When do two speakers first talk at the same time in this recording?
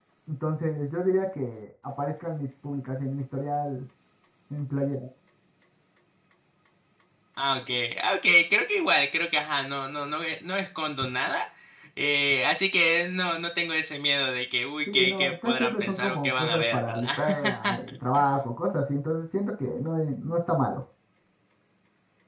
14.9 s

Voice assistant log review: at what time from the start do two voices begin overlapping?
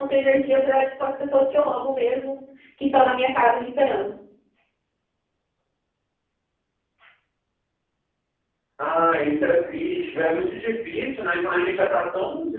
none

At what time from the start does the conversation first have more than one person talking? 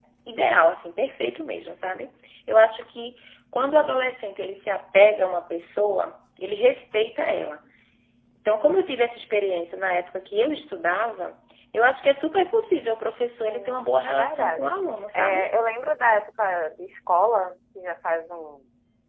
13.5 s

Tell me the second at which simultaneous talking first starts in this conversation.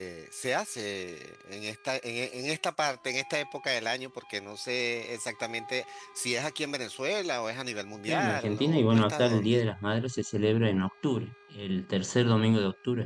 8.1 s

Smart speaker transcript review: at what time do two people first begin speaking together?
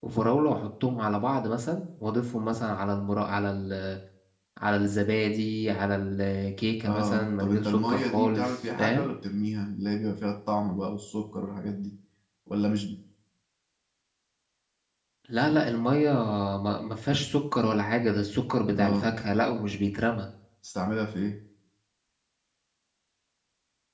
6.8 s

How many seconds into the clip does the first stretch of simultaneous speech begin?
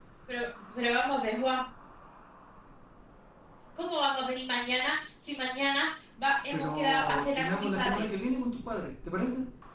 6.5 s

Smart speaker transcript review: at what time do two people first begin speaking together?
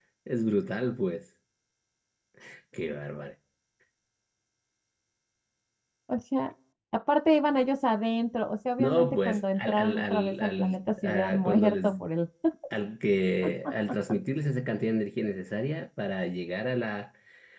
8.8 s

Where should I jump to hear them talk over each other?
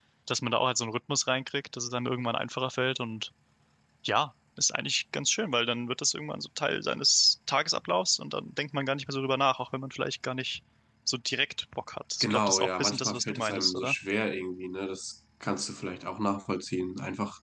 12.2 s

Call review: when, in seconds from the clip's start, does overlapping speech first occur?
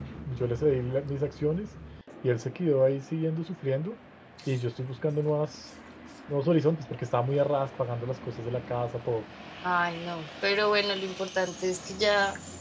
none

